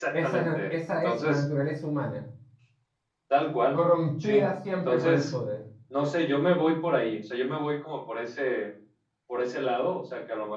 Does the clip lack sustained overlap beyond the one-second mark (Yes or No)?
No